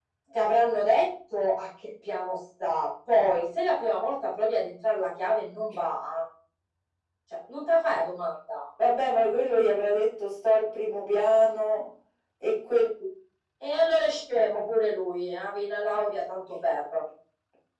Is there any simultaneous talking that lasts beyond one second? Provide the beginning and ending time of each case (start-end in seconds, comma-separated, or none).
none